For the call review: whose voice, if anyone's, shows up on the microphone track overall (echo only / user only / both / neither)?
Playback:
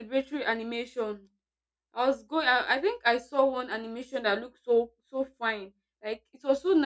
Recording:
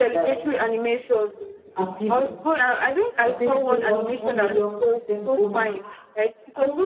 both